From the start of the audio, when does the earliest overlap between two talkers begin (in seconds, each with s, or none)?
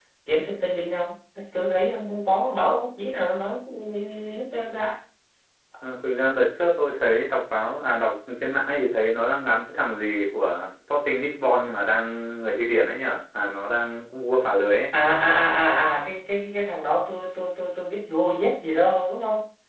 none